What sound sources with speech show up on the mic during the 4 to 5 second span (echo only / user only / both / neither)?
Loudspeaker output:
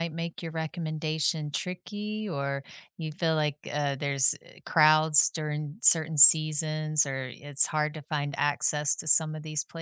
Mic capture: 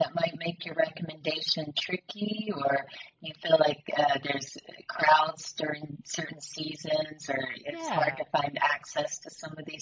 echo only